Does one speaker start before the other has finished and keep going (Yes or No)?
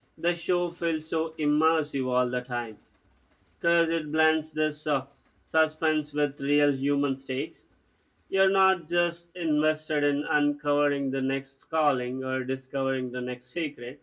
No